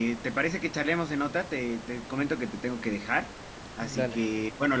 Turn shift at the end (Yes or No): No